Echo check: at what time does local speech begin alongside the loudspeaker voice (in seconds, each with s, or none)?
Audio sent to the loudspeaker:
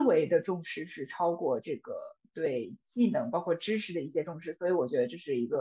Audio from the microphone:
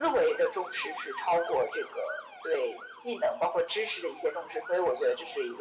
none